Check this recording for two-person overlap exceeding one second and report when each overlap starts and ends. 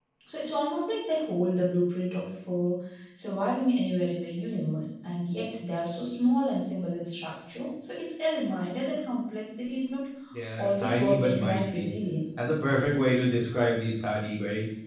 10.6-11.9

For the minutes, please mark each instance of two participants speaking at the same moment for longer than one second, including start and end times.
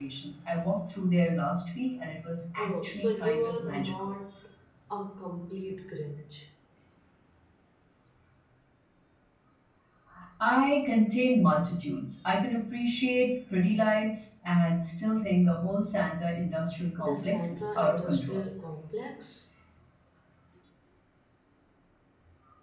2.6-4.1, 17.0-18.4

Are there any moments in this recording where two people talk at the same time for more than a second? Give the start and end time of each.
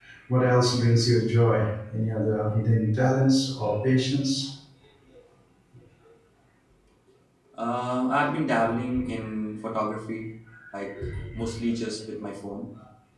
none

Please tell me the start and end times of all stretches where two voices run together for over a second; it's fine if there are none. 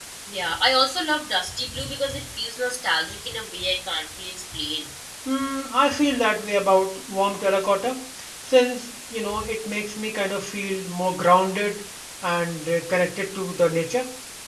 none

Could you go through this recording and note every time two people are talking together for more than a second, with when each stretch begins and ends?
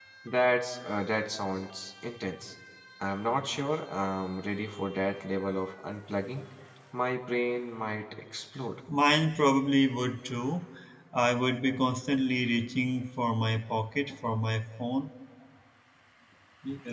none

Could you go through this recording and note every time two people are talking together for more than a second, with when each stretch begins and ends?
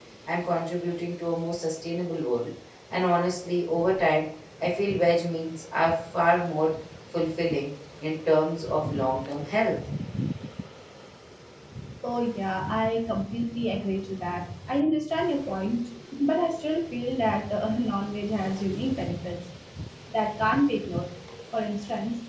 none

